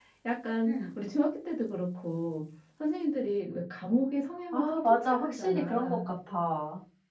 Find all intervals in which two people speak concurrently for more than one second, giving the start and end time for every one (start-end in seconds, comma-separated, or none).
4.5-6.0